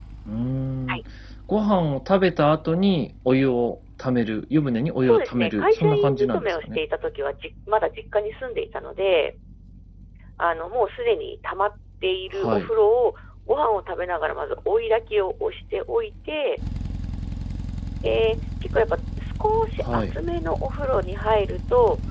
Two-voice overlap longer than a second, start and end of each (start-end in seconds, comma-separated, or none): 5.0-6.8